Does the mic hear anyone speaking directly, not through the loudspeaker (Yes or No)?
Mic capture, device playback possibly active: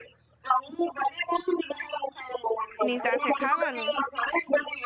Yes